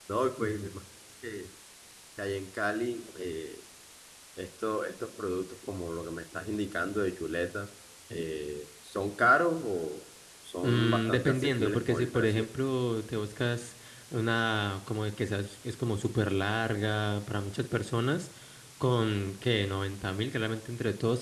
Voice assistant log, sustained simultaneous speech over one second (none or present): present